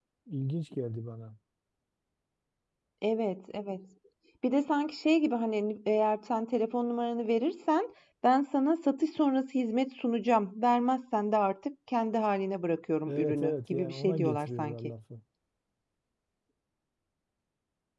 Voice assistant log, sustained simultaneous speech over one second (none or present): present